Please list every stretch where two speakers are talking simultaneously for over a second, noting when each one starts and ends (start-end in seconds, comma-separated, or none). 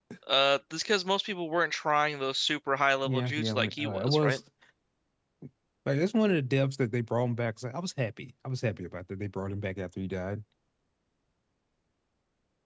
3.0-4.4